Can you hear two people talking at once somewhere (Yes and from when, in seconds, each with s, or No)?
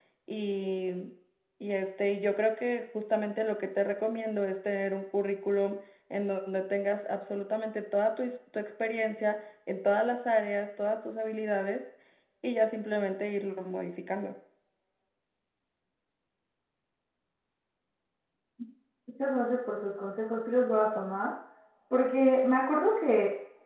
No